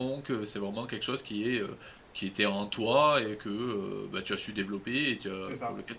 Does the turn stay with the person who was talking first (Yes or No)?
No